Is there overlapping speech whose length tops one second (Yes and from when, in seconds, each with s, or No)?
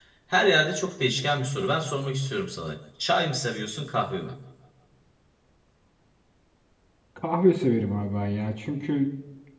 No